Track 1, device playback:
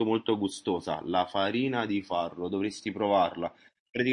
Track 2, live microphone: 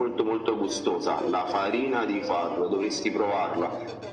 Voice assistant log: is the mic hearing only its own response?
No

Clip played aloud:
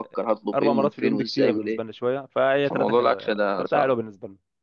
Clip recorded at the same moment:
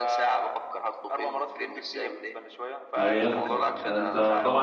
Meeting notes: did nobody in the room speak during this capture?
No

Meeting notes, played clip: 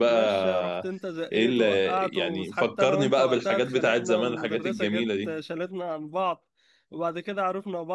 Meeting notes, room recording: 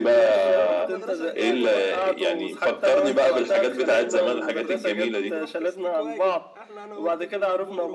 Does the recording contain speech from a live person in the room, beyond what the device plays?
Yes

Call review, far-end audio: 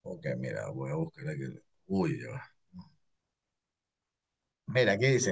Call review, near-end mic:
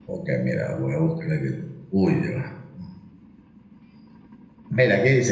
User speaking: No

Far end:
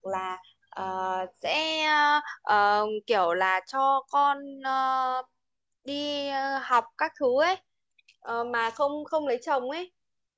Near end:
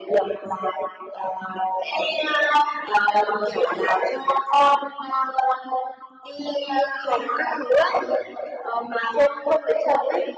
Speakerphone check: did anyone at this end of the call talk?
No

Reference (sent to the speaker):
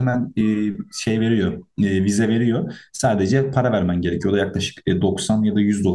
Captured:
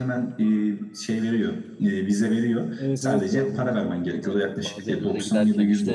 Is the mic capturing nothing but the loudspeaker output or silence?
No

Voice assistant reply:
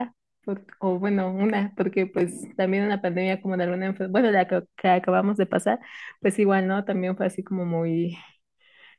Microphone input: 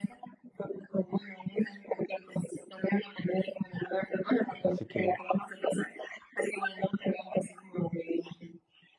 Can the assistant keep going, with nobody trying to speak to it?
No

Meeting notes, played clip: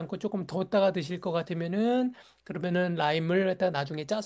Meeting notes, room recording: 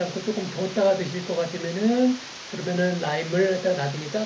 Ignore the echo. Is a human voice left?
No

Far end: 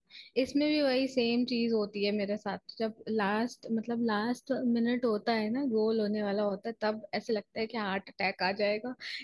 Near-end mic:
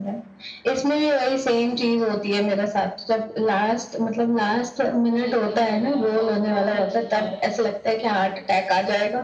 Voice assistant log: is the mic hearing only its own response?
No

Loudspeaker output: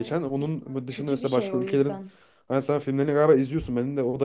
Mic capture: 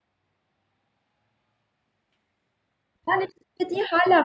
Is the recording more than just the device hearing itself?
Yes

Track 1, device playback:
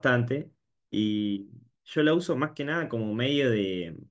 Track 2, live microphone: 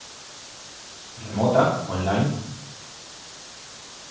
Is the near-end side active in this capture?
Yes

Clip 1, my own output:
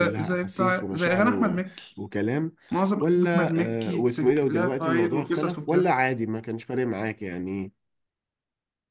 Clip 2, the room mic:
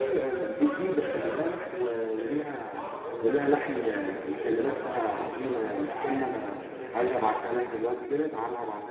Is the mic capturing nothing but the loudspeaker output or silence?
No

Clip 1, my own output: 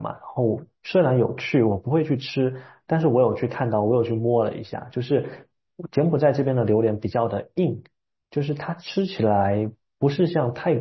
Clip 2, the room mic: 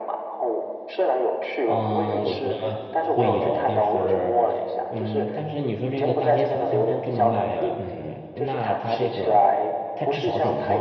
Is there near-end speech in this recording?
Yes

